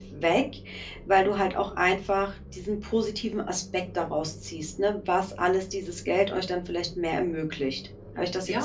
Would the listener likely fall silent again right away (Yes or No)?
No